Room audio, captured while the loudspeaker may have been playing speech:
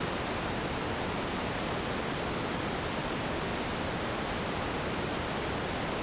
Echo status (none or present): none